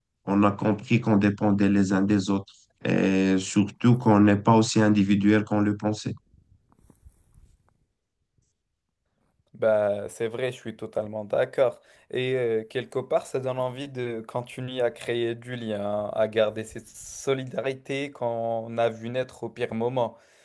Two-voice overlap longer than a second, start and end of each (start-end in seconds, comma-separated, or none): none